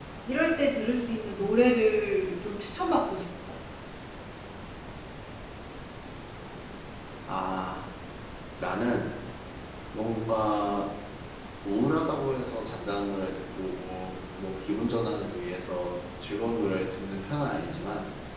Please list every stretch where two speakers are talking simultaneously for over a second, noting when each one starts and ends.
none

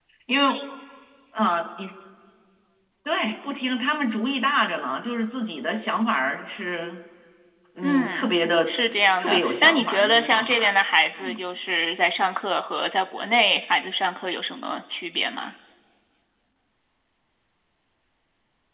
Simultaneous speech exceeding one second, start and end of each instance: 9.2-10.7

